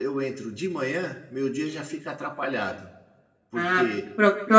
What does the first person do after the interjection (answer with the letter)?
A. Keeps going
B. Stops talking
B